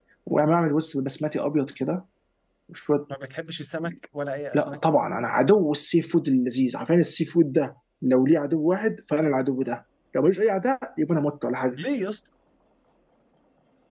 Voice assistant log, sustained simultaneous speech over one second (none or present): none